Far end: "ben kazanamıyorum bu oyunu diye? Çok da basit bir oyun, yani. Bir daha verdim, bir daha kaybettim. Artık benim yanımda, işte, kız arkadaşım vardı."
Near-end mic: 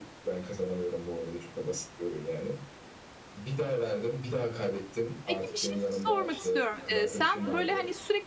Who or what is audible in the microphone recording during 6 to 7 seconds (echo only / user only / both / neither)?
both